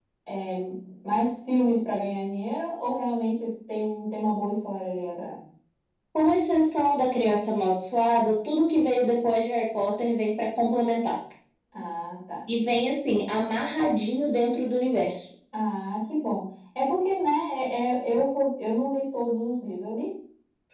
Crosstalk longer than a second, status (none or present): none